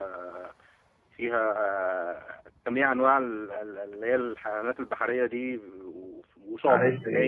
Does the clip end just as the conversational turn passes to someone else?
Yes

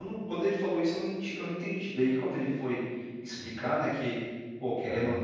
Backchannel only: Yes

